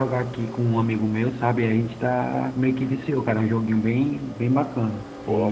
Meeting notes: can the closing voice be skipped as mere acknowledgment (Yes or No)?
No